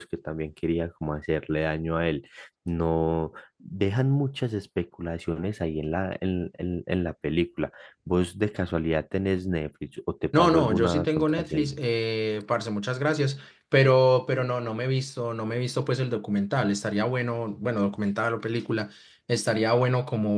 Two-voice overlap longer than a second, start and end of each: 10.3-11.8

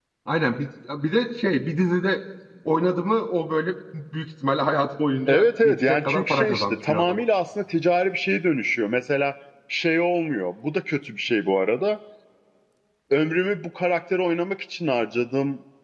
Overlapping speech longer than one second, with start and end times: 5.3-7.2

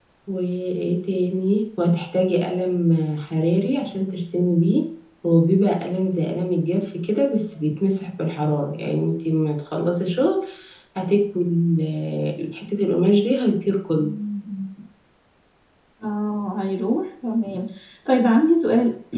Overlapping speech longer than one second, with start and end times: none

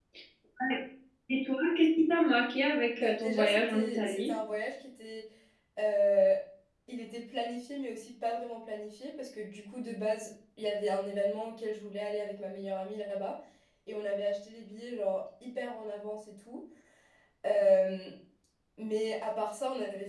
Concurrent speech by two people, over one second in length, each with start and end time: 3.0-4.3

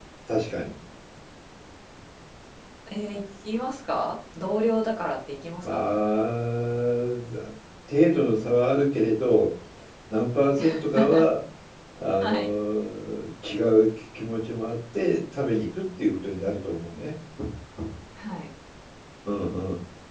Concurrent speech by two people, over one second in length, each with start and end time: none

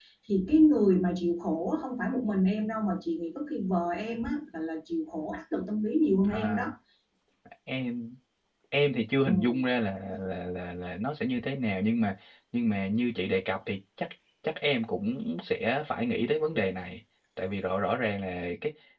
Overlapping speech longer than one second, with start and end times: none

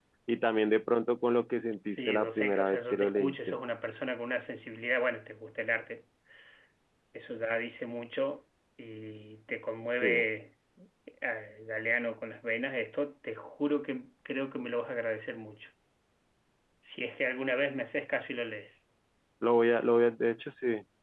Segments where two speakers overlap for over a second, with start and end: 1.9-3.6

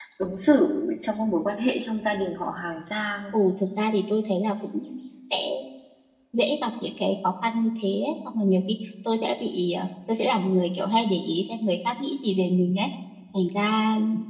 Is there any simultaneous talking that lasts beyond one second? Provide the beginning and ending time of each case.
none

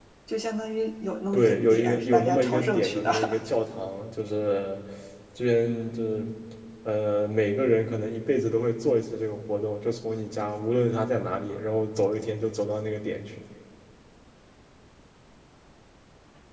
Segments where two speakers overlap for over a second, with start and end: 1.3-3.1

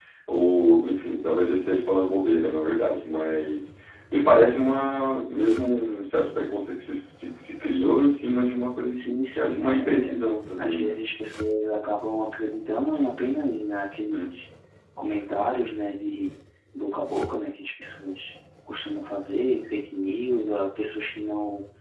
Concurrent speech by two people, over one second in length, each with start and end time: 8.9-10.2

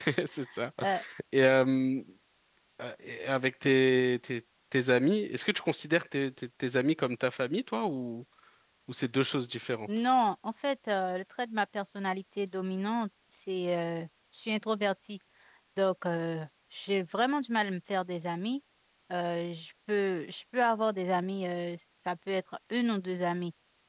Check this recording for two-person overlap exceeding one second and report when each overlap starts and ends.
none

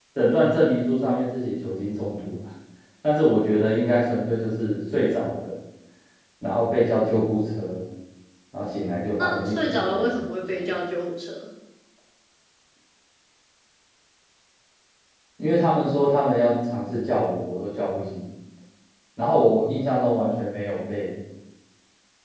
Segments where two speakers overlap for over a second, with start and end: 9.2-10.7

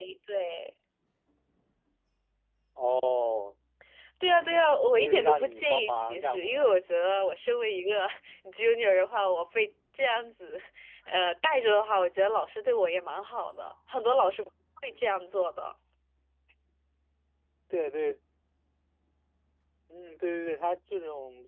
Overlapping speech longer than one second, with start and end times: 5.0-6.7

